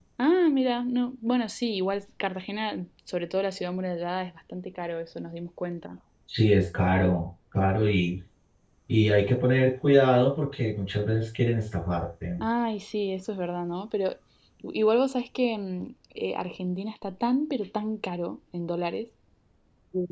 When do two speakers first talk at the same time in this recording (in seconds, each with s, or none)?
none